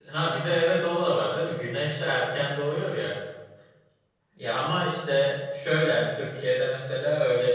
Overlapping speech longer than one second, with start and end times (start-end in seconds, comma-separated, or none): none